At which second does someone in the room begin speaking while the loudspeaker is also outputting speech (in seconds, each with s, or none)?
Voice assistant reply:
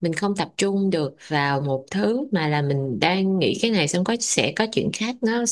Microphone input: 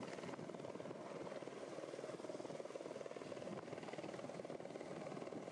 none